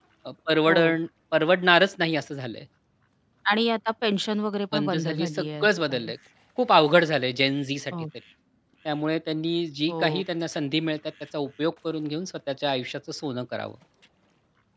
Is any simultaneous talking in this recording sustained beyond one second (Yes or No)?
Yes